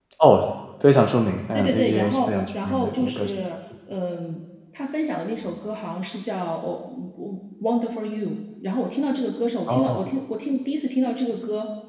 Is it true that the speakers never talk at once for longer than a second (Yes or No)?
No